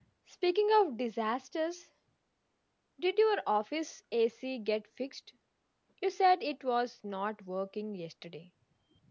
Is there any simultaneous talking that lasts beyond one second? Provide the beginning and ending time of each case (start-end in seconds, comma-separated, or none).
none